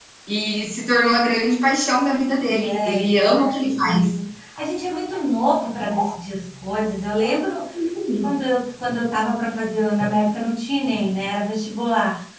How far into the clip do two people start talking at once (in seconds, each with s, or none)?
2.5 s